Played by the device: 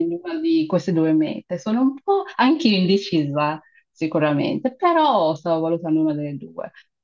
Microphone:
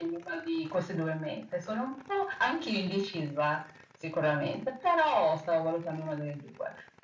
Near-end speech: none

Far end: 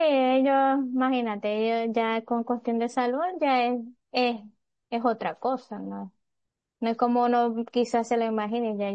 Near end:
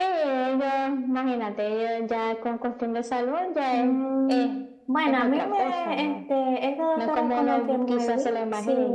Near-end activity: present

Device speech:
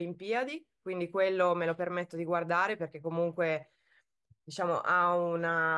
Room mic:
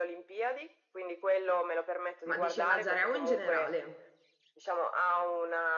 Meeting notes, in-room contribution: present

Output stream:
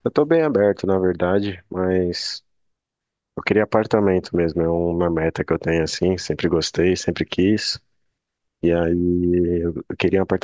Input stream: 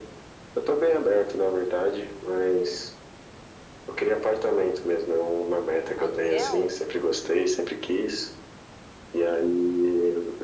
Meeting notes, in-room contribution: present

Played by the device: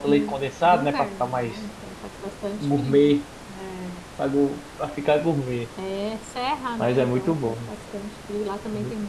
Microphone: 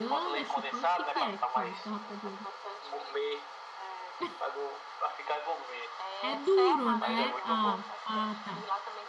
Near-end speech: present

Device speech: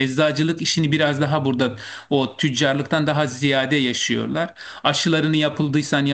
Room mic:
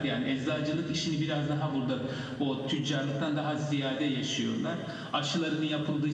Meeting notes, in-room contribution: none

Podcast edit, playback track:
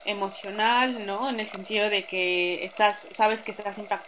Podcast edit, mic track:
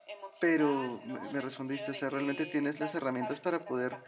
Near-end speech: present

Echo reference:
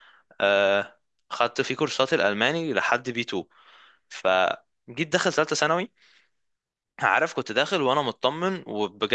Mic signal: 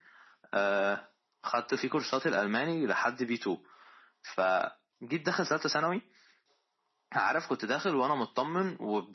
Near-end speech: none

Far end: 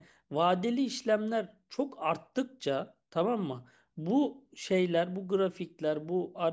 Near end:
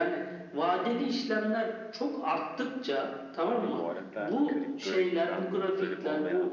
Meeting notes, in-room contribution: present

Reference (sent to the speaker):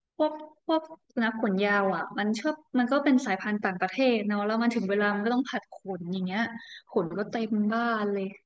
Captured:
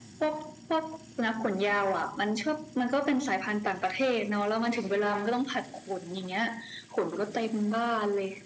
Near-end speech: none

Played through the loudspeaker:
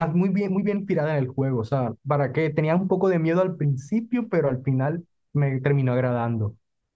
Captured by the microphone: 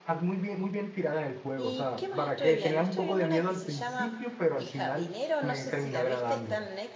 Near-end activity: present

